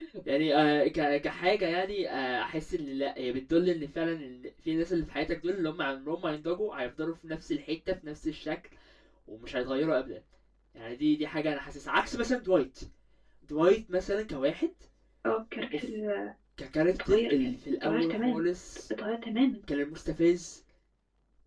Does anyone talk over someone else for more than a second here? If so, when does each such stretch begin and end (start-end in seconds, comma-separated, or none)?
16.9-18.4